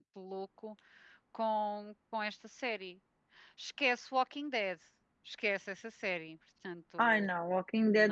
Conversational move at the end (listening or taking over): taking over